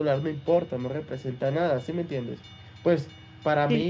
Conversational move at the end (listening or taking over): listening